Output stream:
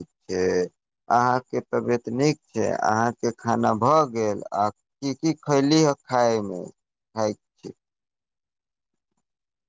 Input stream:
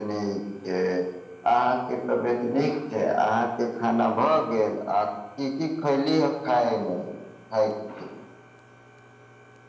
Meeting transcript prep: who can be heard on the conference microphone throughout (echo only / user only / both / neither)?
echo only